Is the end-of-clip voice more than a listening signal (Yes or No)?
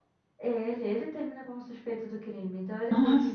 No